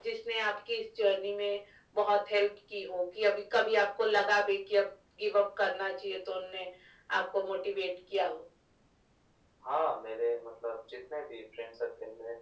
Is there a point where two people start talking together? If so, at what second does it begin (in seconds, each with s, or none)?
none